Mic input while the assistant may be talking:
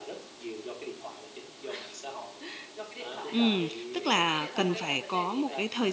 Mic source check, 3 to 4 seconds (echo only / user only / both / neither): both